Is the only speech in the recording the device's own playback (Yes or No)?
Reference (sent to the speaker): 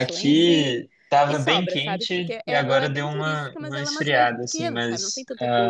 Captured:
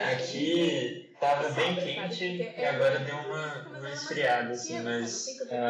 Yes